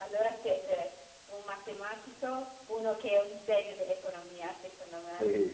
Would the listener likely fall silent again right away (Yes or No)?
No